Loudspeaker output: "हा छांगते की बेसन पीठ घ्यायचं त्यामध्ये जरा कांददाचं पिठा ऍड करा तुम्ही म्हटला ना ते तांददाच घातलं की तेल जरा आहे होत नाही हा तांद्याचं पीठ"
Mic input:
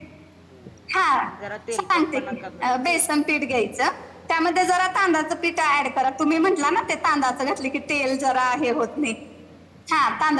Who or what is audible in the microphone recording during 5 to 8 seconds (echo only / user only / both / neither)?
echo only